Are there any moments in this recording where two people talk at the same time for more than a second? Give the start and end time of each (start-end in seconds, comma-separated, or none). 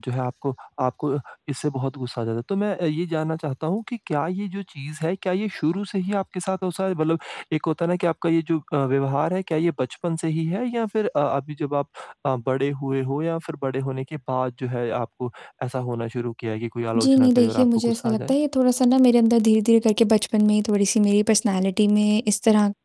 17.0-18.3